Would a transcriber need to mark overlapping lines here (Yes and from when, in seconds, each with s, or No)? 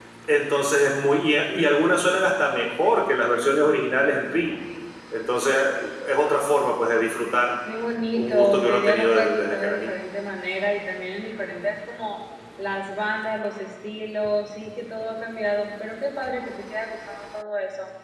Yes, from 8.1 s